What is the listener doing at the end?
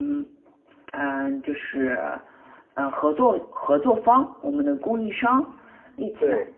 listening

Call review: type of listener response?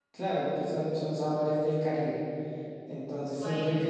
listening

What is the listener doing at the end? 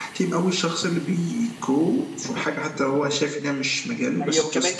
taking over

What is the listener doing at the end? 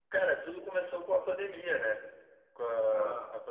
listening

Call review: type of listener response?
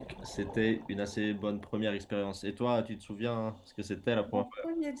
taking over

